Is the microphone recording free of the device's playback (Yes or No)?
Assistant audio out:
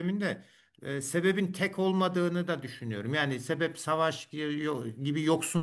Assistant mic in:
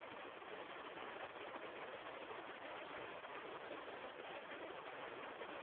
Yes